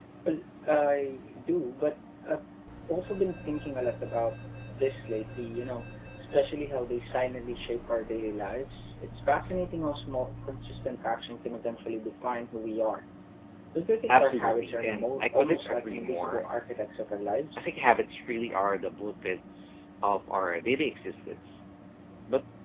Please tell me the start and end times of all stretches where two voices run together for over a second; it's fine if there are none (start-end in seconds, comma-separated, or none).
14.1-16.5